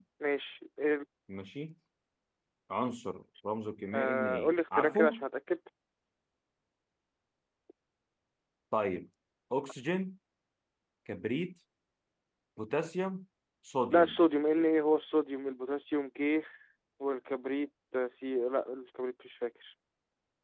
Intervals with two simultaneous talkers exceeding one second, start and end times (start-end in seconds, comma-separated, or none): 3.9-5.2